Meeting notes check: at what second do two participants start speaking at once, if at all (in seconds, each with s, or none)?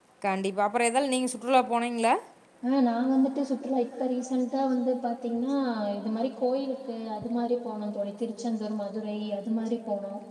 none